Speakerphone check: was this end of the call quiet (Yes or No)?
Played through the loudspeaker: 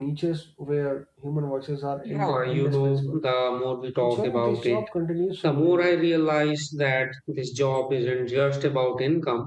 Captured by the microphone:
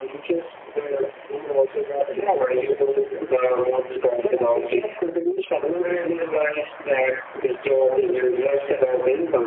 Yes